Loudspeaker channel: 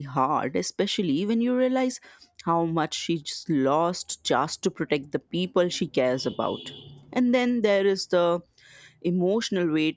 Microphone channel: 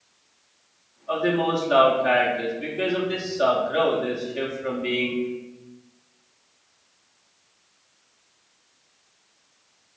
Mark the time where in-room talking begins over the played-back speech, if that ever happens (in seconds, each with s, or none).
1.1 s